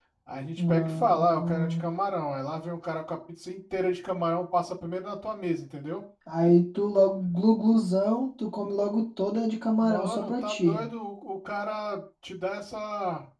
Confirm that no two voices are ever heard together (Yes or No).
No